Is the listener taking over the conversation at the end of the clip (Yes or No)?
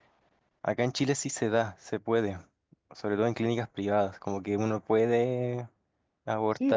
Yes